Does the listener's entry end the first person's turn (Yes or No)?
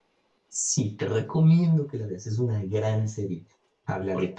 No